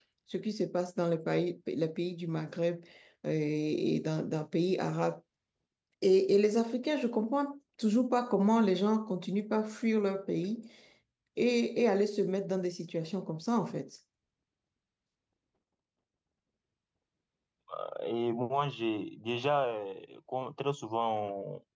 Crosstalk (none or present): none